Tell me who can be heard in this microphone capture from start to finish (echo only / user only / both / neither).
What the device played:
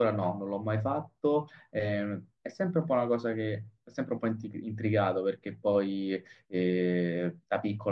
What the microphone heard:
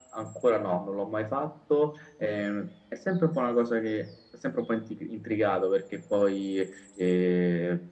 echo only